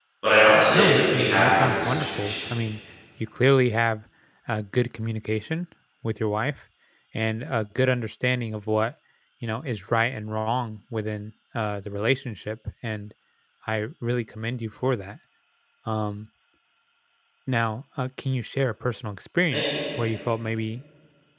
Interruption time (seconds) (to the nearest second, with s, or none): 1 s